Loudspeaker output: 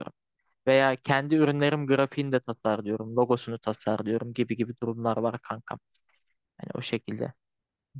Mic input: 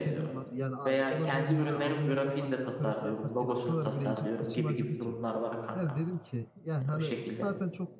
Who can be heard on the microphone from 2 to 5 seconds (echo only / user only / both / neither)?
both